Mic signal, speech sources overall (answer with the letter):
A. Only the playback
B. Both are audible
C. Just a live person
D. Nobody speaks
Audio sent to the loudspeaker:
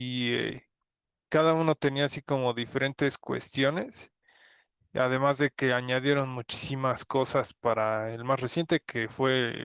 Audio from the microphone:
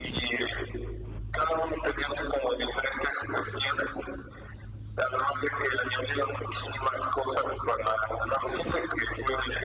A